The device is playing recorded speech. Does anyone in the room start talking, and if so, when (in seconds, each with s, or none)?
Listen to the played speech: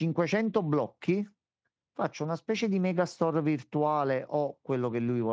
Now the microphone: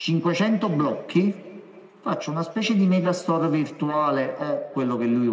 none